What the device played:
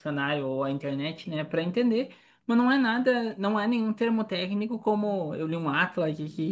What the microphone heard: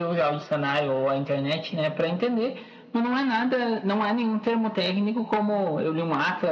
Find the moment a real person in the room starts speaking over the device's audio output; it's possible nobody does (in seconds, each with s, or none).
none